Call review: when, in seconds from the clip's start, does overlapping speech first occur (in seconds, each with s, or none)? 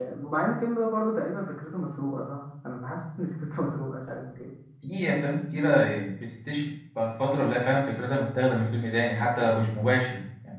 none